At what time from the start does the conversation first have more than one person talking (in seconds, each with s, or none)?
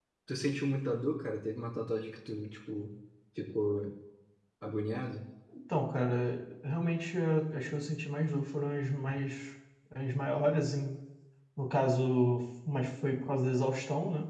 none